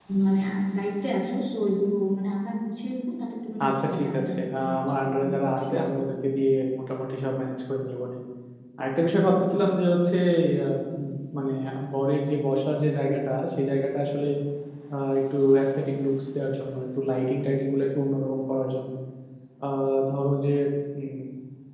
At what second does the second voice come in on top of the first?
3.6 s

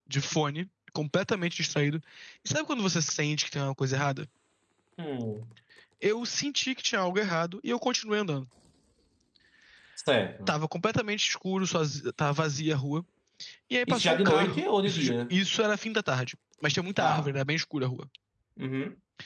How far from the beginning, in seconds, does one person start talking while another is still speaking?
13.9 s

